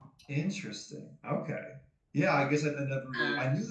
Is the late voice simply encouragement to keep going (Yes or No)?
Yes